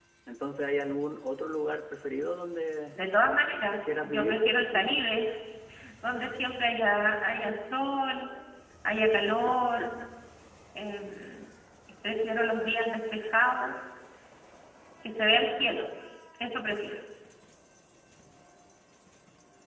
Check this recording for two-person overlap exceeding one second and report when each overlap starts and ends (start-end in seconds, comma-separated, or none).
3.7-5.0